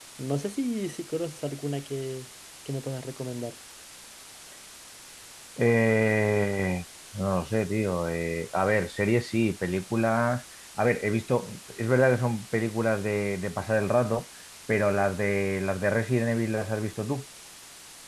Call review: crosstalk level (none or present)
none